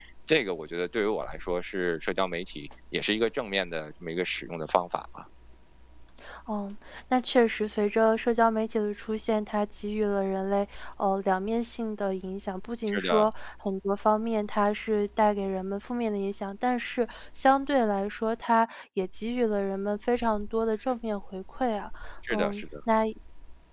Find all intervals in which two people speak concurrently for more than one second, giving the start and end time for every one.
none

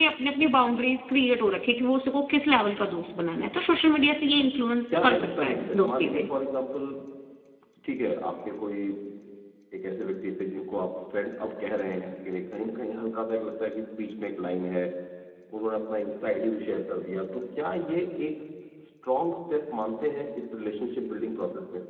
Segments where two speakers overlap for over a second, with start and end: 5.0-6.3

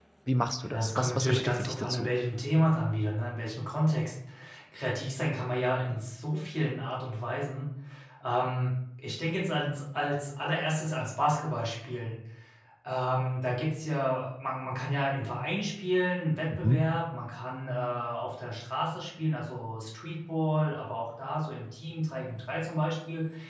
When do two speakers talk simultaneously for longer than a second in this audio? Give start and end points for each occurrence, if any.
0.7-2.1

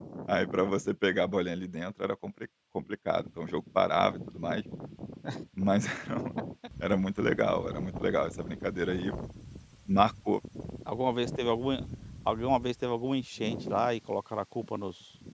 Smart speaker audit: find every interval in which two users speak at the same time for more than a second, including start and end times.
none

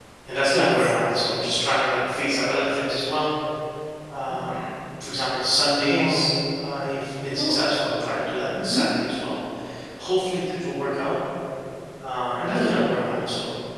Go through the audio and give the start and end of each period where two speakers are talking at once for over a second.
none

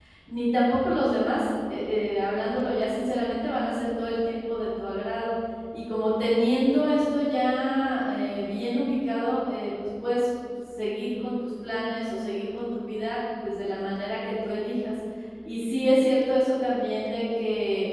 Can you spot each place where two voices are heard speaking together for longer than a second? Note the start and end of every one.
none

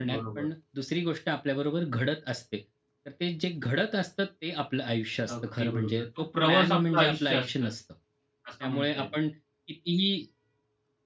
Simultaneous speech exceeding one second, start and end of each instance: 5.4-7.7

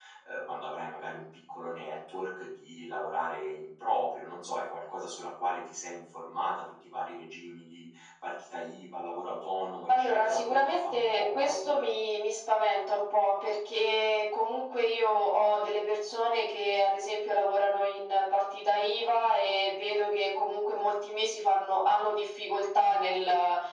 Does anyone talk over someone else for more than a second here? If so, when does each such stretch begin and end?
9.9-11.9

